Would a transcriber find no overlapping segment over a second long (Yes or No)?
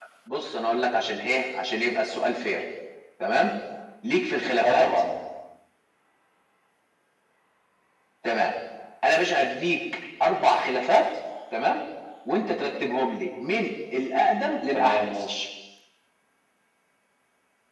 Yes